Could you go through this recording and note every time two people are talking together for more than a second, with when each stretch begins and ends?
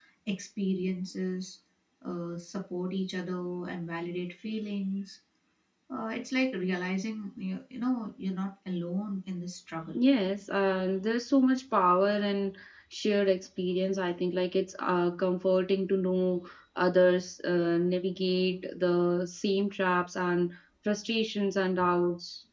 none

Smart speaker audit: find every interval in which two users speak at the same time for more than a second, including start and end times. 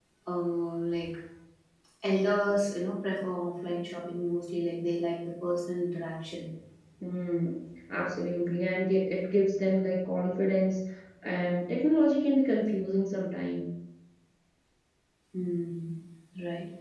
none

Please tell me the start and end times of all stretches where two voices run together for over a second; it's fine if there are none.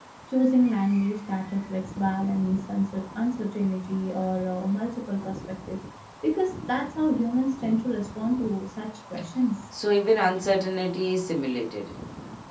none

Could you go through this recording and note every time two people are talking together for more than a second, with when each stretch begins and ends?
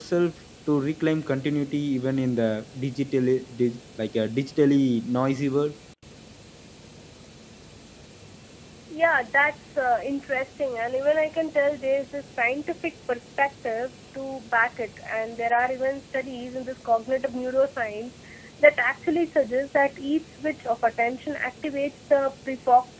none

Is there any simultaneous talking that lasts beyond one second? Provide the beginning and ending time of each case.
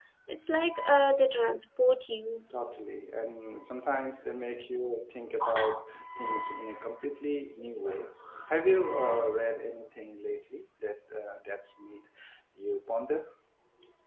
none

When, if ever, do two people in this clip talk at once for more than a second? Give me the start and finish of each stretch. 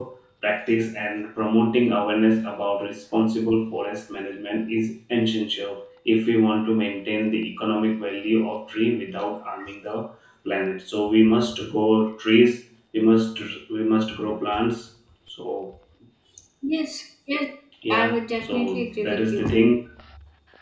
17.9-19.4

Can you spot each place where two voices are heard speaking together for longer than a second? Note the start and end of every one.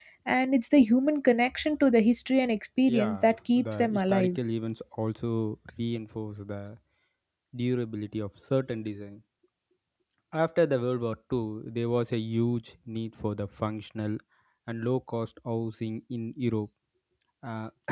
2.9-4.4

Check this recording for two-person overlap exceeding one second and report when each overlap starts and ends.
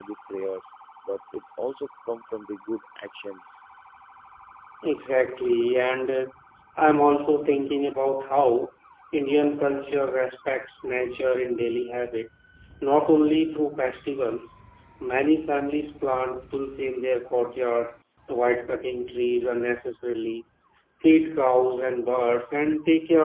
none

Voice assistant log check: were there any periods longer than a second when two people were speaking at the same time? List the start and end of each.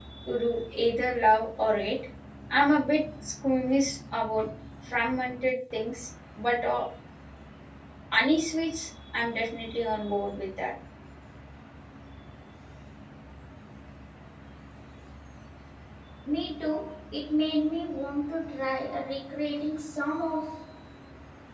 none

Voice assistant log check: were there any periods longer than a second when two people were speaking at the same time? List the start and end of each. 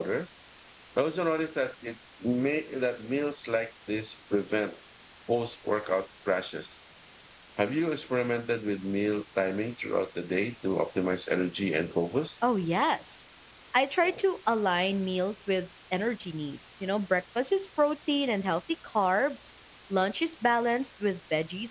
none

